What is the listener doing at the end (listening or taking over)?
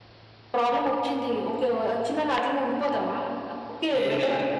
listening